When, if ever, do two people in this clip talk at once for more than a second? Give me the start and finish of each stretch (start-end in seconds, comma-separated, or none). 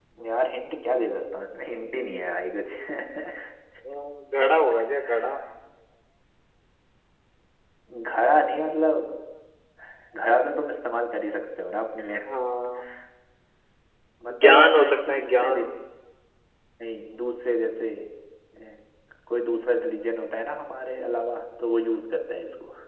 14.4-15.7